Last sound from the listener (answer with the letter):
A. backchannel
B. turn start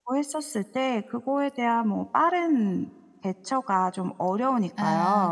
B